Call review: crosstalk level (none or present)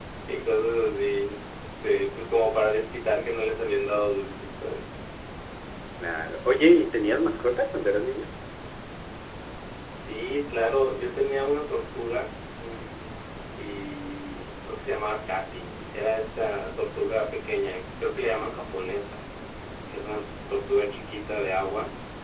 none